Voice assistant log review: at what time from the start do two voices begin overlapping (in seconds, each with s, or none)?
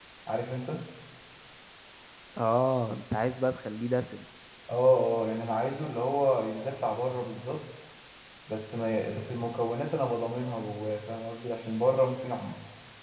none